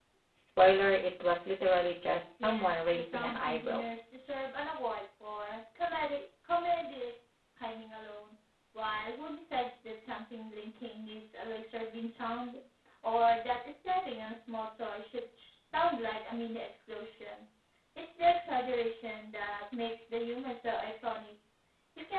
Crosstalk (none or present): present